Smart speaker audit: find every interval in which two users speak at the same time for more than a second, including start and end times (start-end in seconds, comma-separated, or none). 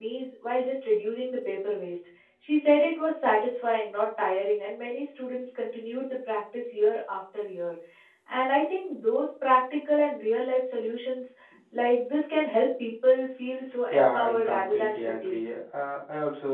13.9-15.4